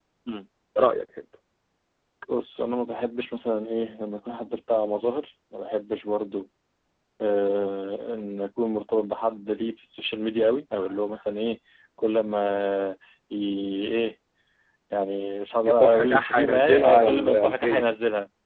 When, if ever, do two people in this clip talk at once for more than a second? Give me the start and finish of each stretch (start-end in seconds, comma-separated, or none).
15.6-17.9